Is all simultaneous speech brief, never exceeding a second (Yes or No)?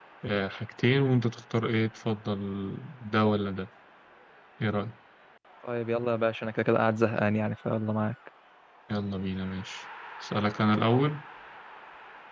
Yes